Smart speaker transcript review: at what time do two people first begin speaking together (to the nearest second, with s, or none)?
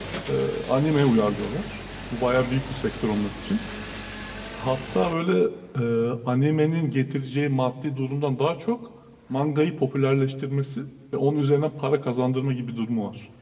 none